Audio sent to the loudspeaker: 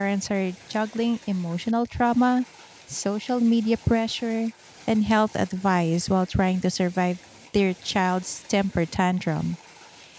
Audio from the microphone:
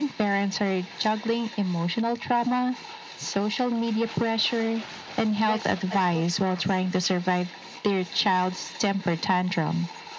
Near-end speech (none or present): present